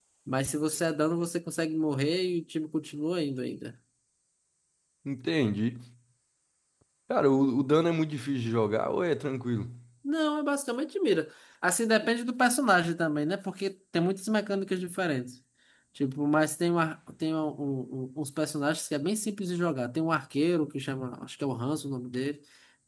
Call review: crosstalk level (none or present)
none